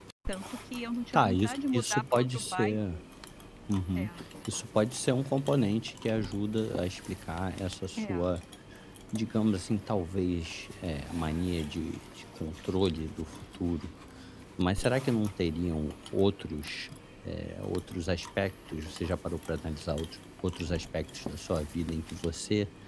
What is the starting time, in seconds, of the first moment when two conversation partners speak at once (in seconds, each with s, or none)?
1.1 s